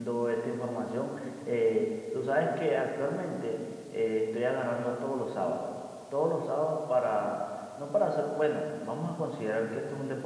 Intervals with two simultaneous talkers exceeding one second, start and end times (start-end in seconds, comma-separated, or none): none